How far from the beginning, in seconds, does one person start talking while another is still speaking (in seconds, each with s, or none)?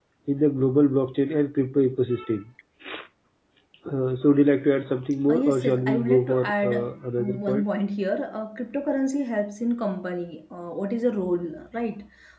5.3 s